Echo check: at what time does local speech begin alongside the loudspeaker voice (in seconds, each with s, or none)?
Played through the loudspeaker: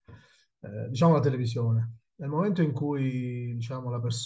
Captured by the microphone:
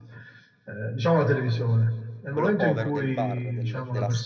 2.3 s